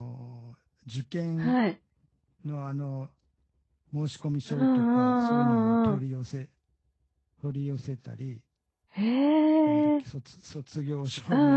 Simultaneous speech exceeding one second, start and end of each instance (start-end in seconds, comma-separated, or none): 4.5-6.0